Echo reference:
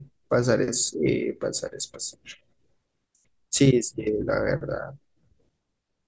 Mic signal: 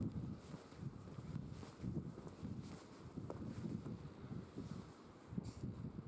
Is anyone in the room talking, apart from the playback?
No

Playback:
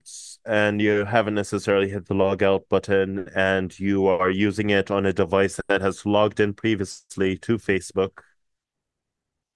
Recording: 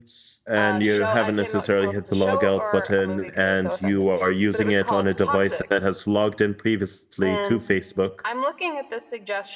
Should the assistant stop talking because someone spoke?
Yes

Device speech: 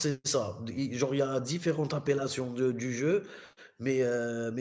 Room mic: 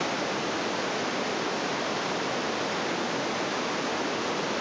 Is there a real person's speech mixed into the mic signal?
No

